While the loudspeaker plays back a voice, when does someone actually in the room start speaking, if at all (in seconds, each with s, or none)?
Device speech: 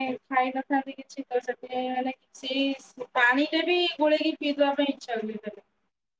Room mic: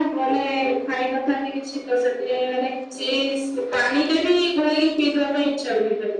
none